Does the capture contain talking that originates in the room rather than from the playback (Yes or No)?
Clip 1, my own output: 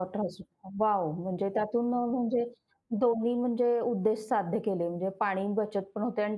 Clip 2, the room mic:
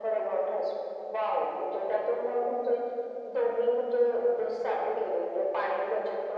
No